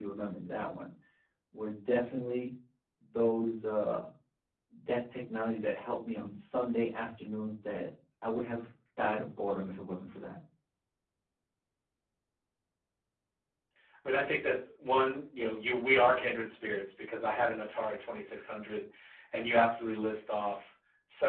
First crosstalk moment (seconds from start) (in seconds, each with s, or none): none